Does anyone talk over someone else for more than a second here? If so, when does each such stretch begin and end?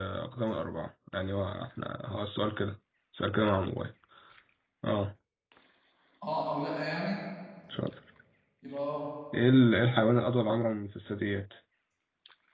none

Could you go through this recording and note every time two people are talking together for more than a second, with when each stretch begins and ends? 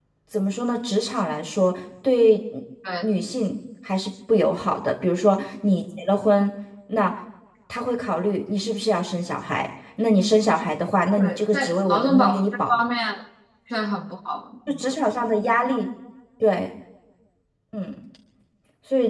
11.2-12.7

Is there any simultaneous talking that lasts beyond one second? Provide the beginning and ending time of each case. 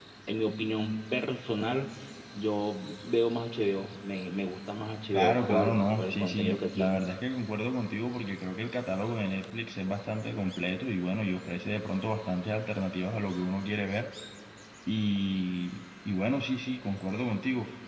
5.1-7.0

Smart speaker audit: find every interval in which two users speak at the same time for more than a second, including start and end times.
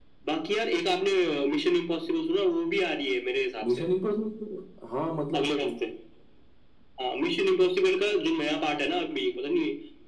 none

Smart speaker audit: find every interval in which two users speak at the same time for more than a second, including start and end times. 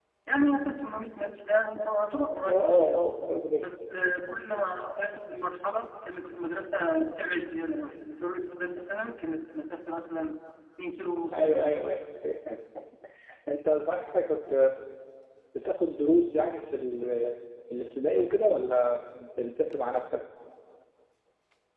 none

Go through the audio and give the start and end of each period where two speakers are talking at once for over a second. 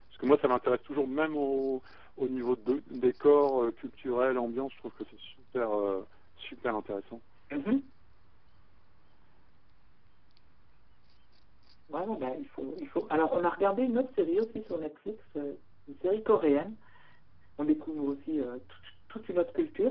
none

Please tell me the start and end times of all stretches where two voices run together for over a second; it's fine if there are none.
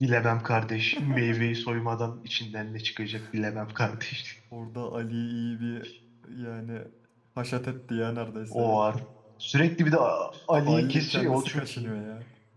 10.5-11.9

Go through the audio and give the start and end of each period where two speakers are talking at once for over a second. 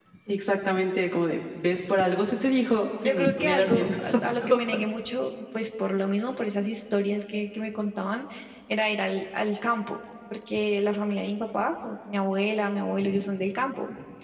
3.0-4.8

